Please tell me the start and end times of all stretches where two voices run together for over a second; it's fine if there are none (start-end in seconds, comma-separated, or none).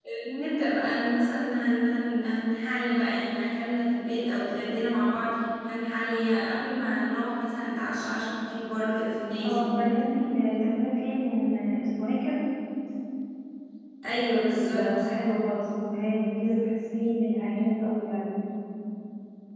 none